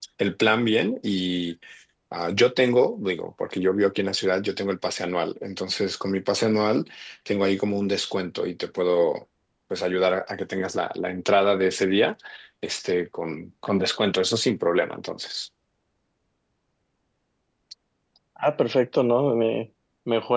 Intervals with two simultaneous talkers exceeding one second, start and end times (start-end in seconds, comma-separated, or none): none